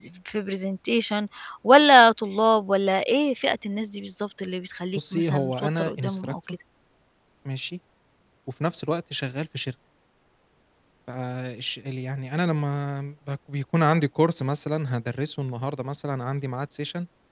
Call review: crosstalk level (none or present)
present